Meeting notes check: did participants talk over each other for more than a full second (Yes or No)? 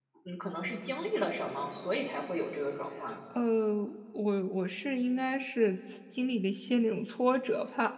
No